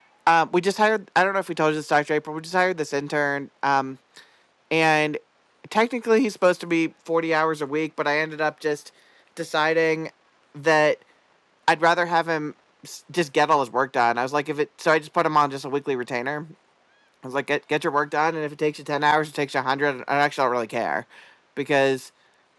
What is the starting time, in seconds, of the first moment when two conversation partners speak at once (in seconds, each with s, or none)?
none